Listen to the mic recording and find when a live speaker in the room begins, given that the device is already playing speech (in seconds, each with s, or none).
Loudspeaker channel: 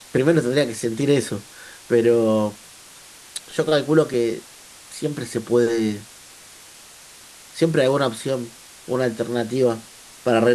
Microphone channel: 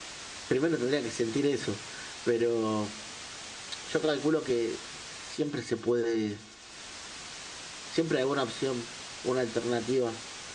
none